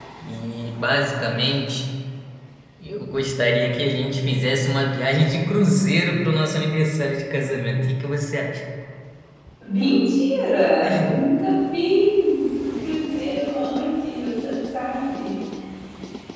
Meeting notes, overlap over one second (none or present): none